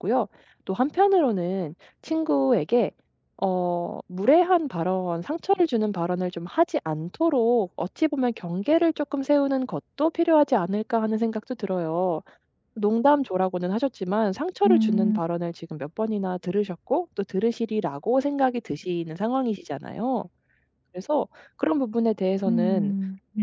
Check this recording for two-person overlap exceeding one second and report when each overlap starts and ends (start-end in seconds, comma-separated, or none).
none